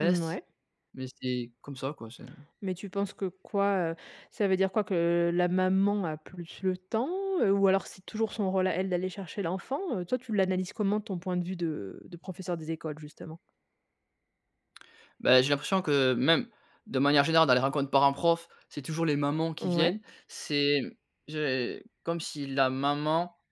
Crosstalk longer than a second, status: none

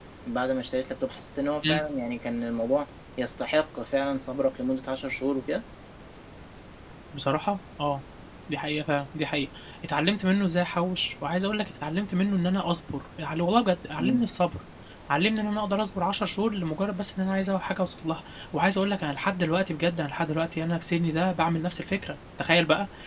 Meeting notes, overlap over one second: none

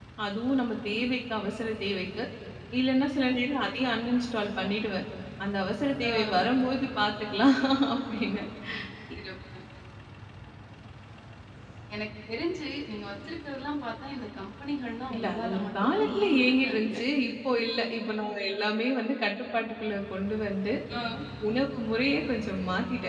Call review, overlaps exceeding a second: present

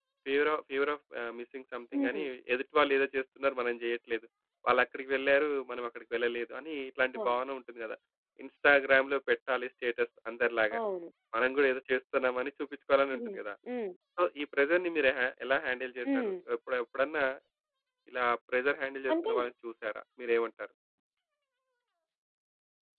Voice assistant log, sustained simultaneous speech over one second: none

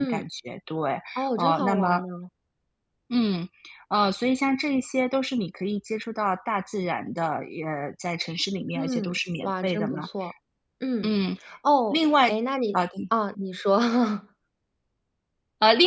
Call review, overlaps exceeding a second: present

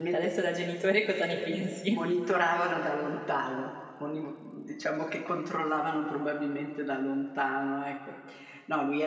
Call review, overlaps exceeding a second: none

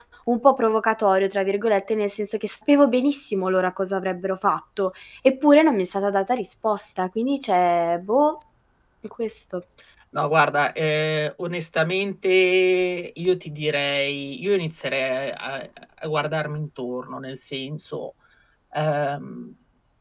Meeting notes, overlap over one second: none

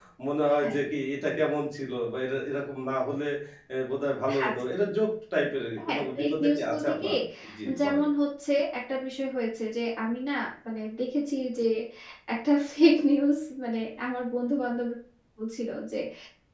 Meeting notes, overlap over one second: present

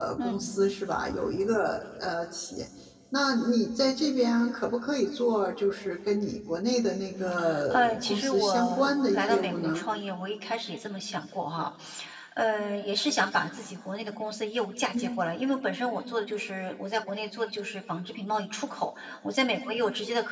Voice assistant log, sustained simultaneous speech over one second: present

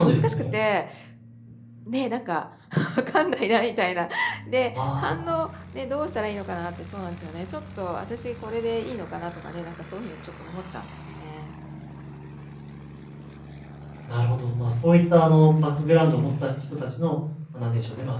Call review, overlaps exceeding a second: none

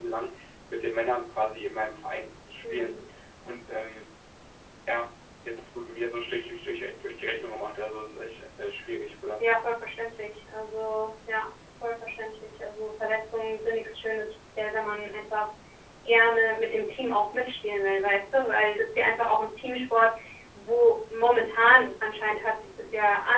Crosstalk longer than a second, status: none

